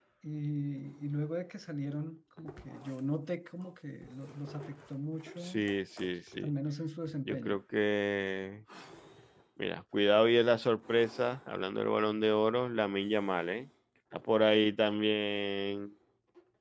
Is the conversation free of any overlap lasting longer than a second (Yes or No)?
Yes